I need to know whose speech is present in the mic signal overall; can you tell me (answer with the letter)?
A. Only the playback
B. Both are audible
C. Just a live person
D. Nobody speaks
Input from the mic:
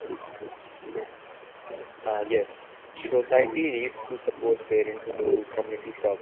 B